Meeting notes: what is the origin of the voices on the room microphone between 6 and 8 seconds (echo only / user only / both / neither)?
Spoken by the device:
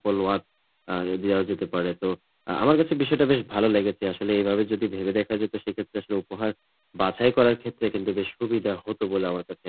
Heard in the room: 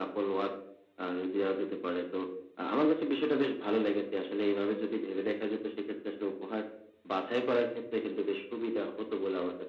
echo only